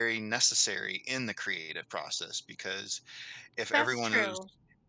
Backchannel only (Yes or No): Yes